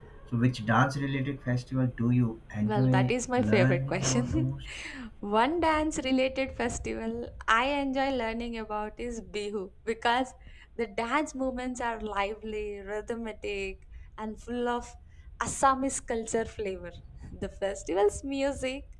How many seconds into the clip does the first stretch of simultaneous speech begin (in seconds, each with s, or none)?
2.6 s